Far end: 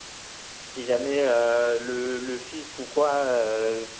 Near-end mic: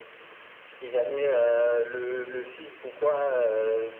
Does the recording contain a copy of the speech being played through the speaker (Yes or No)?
Yes